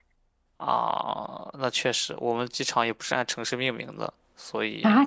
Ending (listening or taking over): taking over